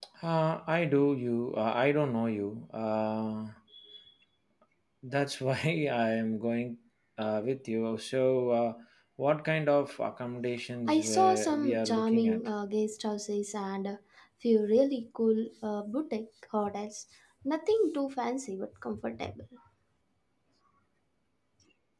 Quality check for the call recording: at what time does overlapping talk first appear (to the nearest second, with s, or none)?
11 s